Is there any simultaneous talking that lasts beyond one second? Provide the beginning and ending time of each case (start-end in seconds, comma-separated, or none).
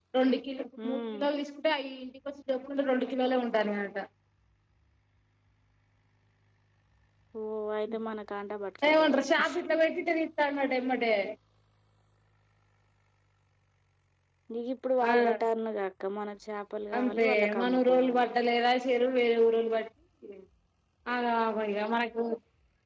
17.0-18.2